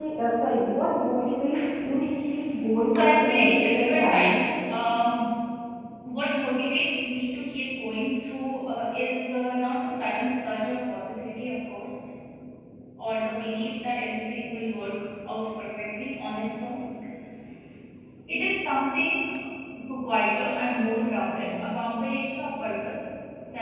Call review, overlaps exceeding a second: present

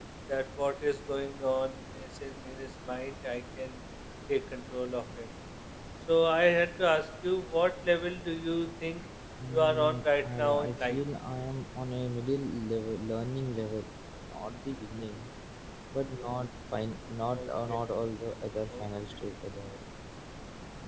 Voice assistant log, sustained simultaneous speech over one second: present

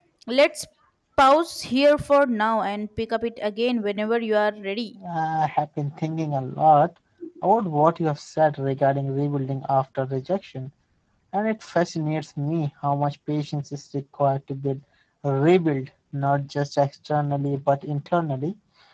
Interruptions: none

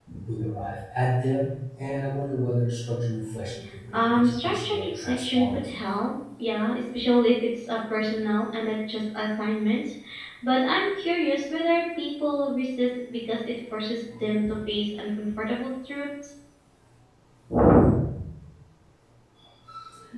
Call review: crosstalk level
present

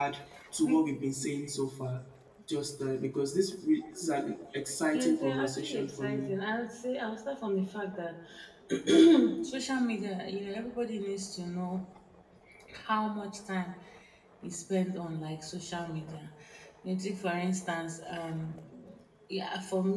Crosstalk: present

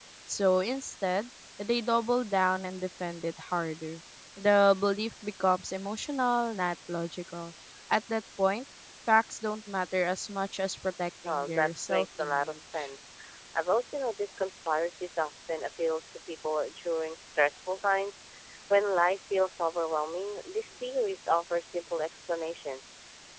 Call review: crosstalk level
present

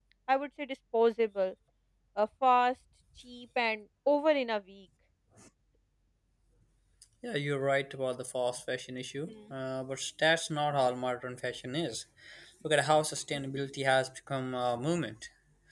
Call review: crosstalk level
none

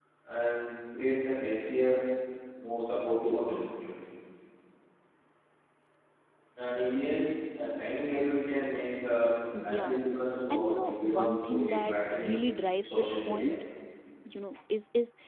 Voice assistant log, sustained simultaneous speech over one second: present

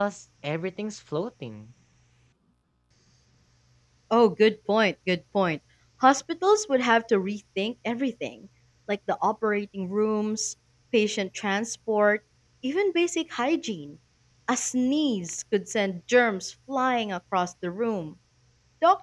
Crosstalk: none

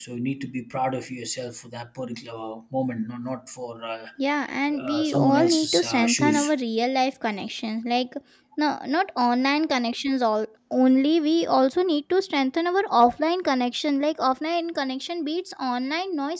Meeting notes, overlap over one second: present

